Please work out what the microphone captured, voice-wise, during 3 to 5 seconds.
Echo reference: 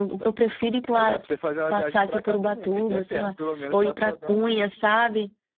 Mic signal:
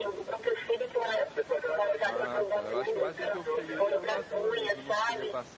both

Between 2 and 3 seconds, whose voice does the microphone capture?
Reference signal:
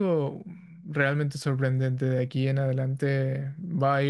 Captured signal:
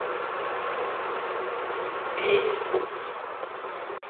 user only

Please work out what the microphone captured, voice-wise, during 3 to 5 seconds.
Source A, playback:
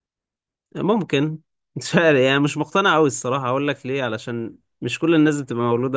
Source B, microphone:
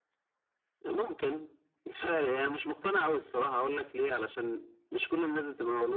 echo only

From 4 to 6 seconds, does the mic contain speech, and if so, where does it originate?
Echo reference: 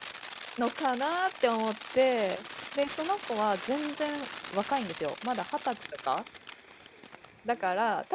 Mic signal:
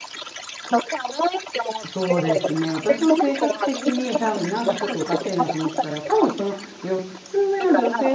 both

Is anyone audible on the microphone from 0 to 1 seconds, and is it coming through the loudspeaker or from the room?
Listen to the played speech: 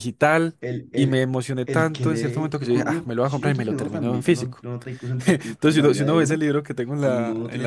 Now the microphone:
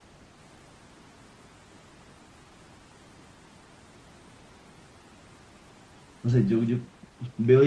neither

